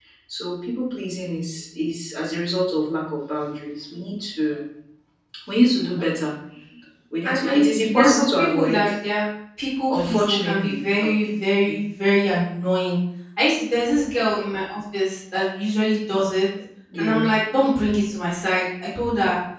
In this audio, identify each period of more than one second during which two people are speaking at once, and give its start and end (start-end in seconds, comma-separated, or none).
7.2-8.9, 9.9-11.1